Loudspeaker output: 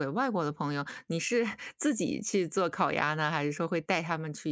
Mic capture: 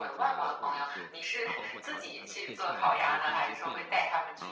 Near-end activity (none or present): present